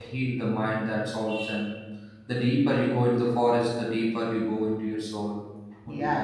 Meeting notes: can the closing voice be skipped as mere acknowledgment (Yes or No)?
No